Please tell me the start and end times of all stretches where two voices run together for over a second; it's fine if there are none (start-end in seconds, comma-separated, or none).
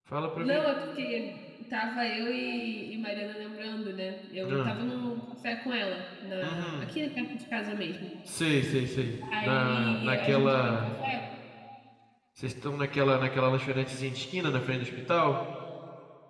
9.4-10.9